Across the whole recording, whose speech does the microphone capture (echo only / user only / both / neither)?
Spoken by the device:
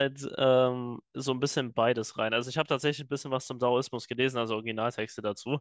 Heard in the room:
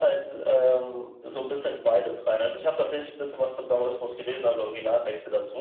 echo only